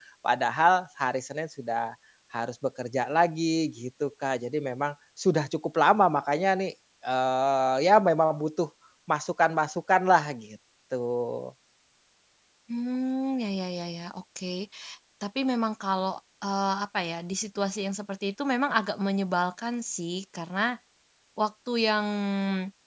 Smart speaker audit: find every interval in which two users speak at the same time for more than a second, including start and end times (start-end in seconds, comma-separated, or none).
none